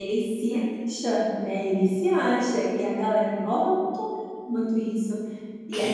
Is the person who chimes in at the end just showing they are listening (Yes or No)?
Yes